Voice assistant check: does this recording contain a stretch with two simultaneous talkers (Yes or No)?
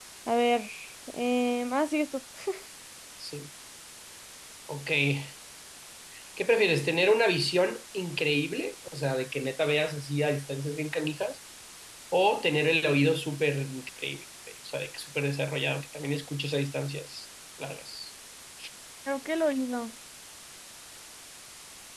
No